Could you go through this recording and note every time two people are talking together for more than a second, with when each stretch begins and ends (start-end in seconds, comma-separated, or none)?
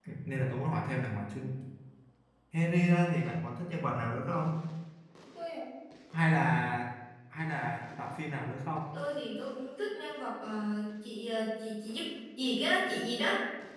none